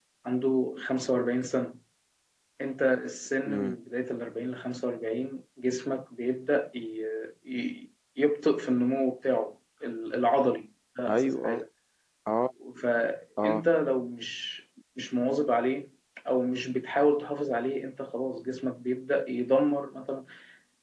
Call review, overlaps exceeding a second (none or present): none